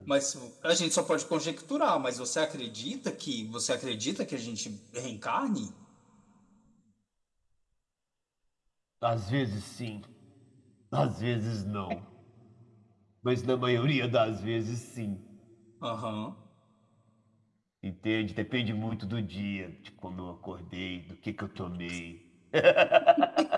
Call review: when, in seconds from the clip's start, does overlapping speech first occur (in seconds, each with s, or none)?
none